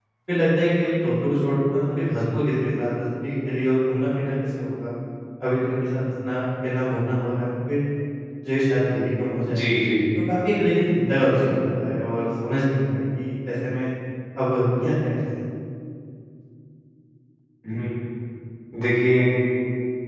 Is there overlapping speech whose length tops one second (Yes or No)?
No